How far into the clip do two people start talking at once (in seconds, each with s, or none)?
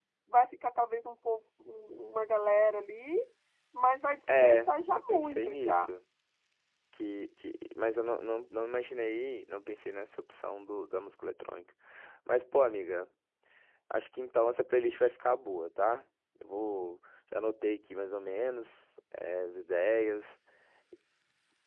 4.3 s